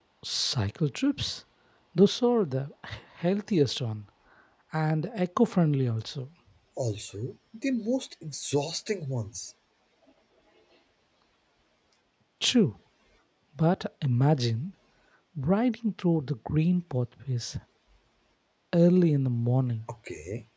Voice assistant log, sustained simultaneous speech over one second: none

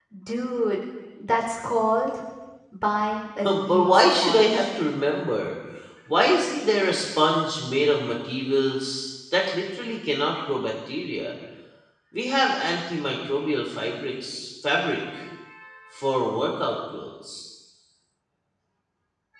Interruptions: present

